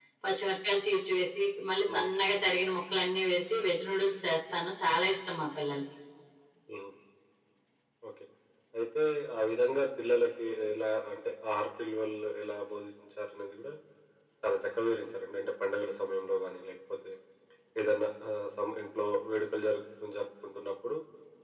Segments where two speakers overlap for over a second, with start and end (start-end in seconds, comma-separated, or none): none